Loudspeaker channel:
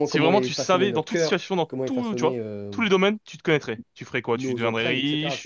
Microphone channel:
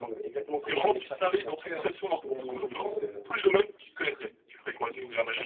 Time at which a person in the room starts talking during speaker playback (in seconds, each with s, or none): 2.2 s